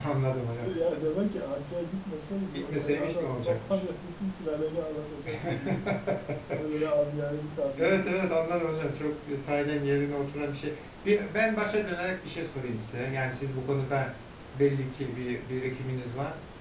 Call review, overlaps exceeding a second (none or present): present